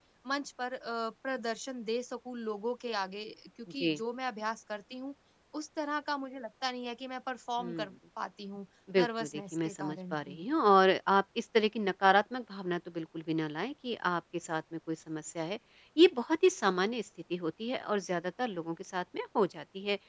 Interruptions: present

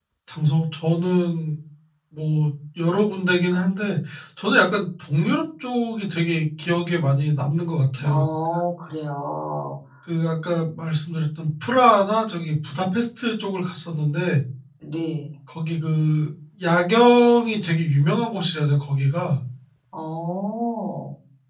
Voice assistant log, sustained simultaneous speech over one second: none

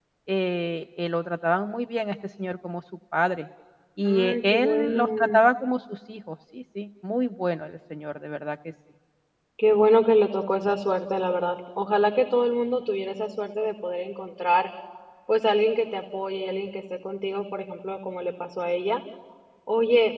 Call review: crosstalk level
present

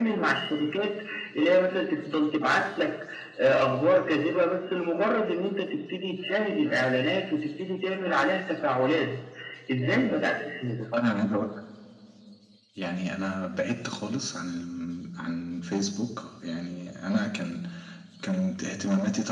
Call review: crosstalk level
none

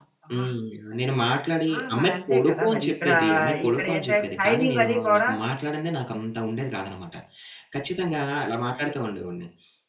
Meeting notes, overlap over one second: present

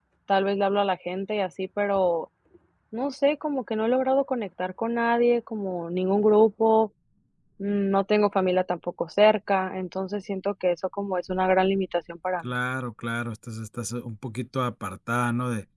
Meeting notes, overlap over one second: none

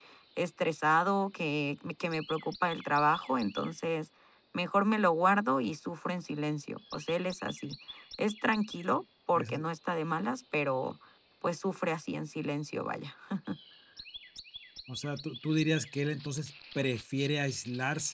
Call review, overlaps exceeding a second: none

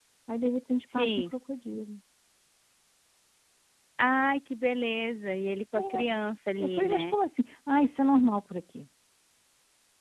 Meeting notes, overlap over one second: none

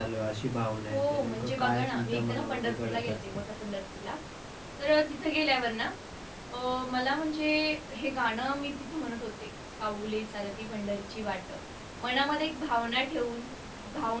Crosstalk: present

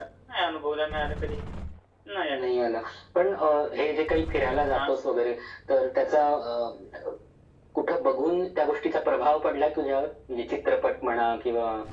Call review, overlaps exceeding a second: none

